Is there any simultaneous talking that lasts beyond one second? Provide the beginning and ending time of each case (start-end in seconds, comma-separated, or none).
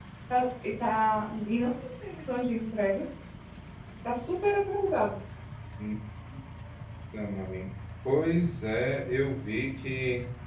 none